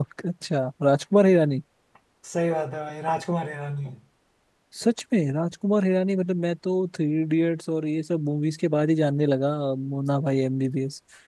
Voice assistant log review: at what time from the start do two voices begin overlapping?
none

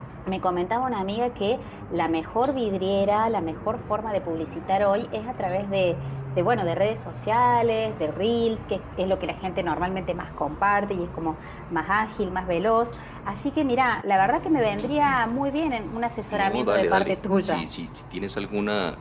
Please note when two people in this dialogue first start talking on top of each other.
16 s

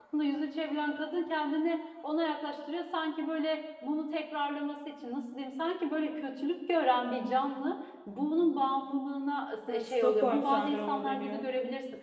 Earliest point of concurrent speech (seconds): 10 s

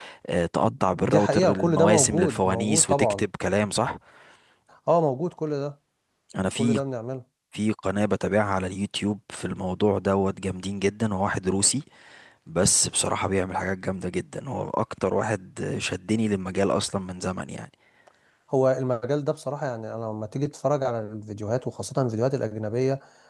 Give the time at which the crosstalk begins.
1 s

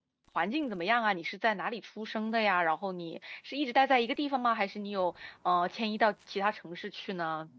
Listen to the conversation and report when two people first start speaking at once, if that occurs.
none

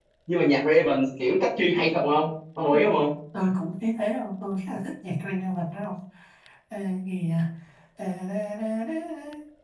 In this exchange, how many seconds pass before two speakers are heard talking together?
none

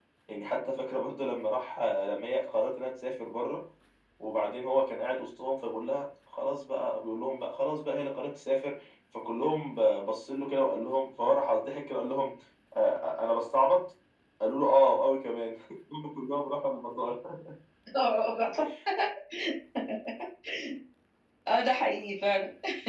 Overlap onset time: none

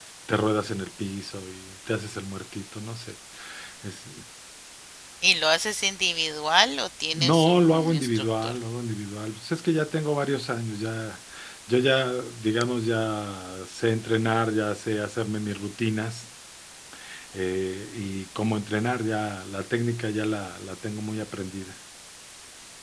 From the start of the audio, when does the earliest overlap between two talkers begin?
7 s

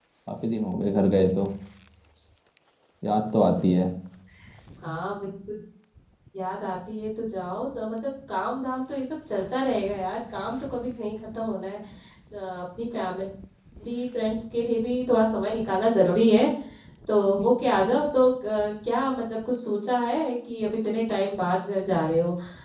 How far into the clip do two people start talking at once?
none

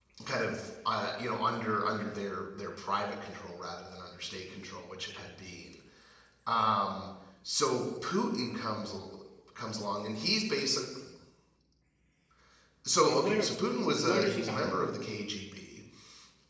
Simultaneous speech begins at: 13 s

